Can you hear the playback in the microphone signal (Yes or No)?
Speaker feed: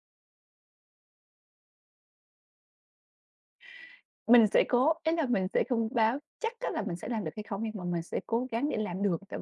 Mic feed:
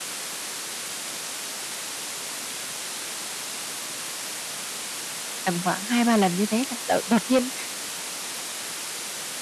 No